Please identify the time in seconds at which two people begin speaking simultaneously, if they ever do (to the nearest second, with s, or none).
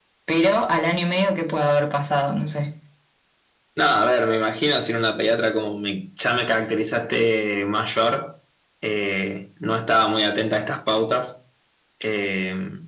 none